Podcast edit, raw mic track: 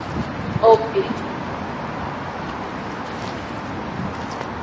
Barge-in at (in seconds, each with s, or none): 0.7 s